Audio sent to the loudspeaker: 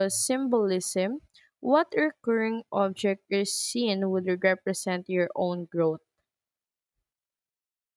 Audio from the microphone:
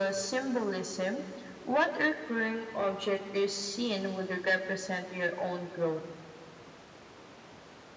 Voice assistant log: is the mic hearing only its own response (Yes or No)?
Yes